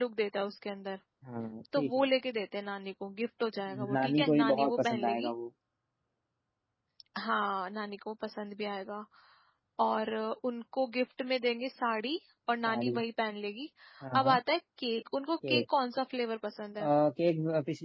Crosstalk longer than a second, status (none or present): present